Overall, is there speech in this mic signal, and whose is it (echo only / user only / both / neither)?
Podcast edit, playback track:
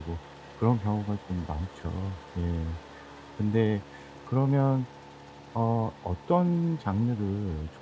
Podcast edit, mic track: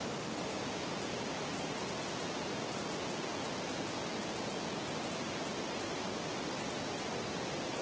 neither